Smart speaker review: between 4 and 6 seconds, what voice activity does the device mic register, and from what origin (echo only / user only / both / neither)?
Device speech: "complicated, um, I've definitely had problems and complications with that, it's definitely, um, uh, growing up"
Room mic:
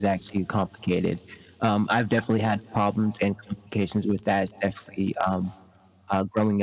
echo only